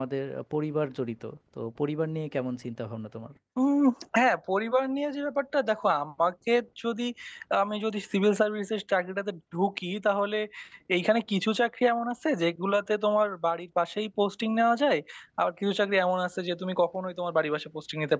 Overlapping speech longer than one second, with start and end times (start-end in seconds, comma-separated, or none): none